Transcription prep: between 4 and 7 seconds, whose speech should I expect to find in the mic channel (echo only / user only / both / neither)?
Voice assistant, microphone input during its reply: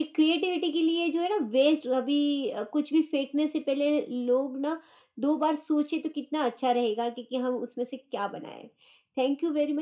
echo only